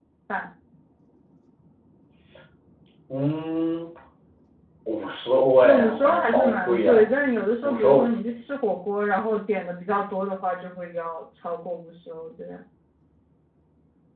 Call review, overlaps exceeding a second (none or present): present